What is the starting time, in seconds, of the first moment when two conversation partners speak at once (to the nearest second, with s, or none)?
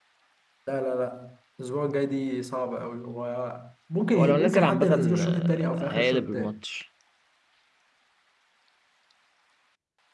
4 s